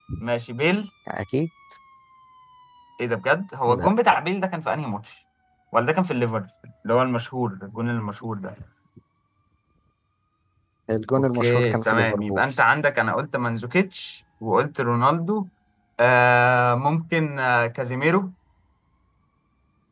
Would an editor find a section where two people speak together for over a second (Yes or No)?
Yes